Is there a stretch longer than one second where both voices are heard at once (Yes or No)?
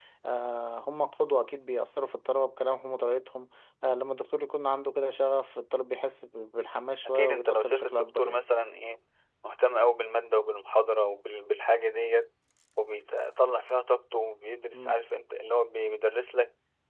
Yes